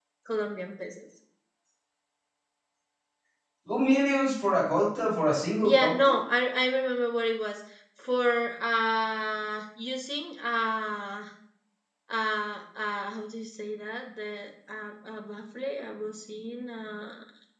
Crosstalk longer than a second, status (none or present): none